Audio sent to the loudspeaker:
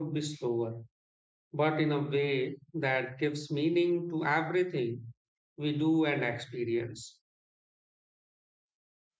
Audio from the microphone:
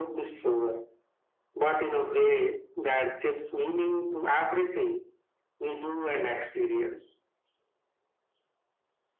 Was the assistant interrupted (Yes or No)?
No